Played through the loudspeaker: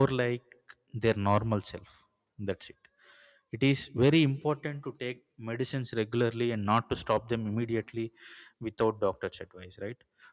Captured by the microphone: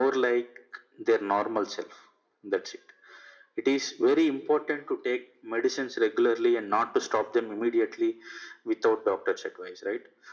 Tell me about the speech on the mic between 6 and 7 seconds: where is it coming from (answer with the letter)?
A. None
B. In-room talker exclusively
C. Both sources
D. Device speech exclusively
D